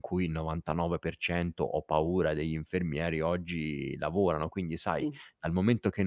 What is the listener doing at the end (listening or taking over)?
listening